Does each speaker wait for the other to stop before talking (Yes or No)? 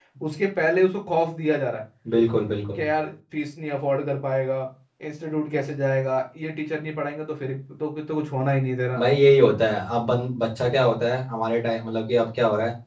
Yes